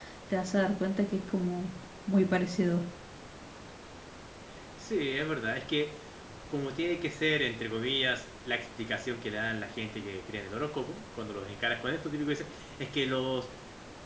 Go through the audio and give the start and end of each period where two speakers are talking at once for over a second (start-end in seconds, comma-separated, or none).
none